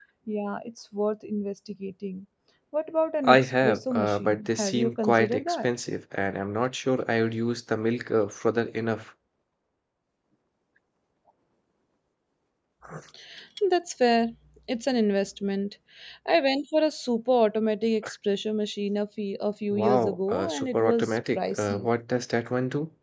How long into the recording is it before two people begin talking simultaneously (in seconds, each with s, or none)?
3.2 s